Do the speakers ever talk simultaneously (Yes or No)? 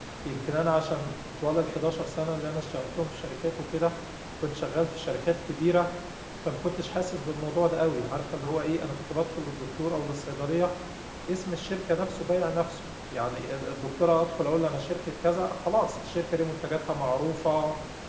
No